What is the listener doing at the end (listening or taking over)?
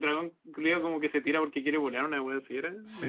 taking over